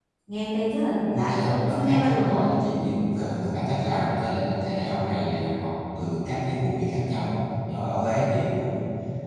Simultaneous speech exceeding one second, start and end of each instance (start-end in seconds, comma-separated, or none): 1.1-2.5